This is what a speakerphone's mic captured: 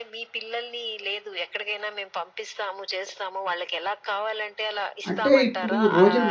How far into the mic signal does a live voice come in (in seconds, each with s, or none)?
5.1 s